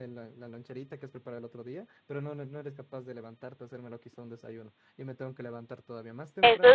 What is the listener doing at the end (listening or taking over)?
taking over